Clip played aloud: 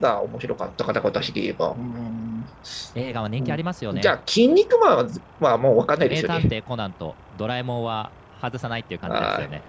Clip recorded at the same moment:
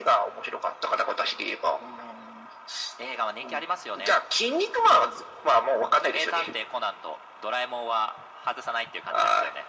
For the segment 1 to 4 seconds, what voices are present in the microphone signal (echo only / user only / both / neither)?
echo only